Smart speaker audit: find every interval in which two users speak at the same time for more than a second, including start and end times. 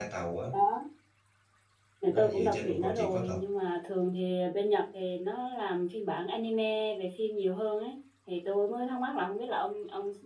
2.1-3.4

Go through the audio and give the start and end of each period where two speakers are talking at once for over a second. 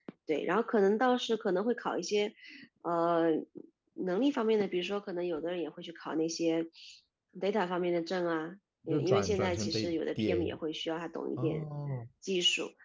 8.9-10.6

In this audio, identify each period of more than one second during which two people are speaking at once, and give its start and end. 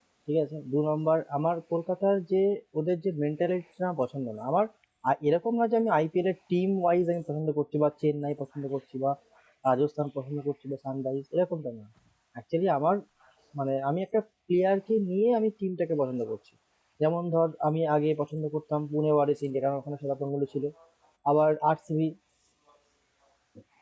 none

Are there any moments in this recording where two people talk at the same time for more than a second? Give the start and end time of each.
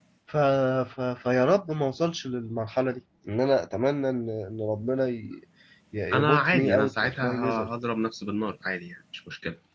6.1-7.7

